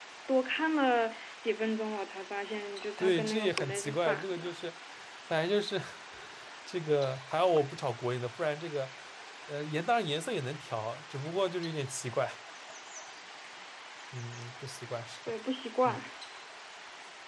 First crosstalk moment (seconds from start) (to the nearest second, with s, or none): 3 s